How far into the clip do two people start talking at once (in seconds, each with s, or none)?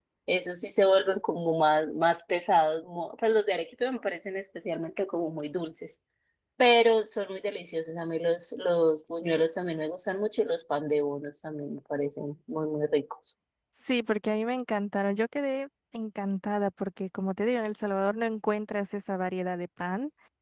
none